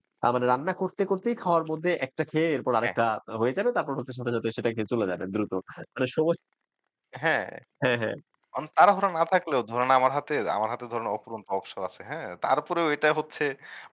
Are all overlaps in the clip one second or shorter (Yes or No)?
Yes